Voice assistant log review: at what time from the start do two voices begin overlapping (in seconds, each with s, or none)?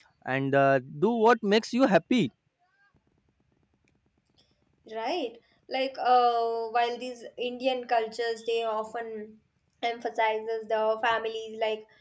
none